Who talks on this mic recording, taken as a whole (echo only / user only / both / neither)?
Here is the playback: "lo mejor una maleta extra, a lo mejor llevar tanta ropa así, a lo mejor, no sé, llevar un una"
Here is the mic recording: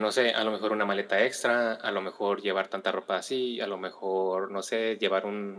echo only